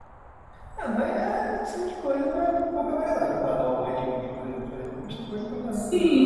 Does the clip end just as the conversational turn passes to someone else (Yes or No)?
Yes